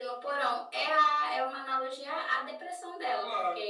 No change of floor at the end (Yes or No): Yes